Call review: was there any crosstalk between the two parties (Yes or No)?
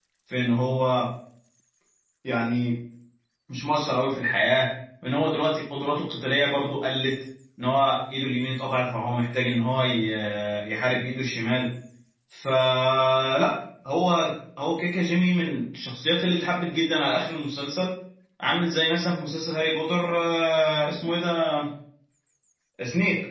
No